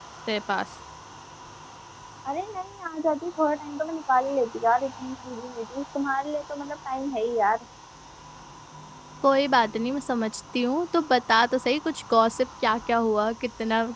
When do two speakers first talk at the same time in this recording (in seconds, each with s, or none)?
none